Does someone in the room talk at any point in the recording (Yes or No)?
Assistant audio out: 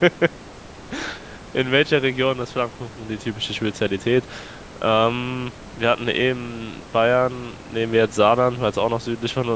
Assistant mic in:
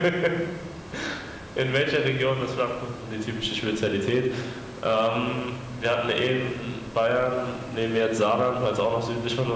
No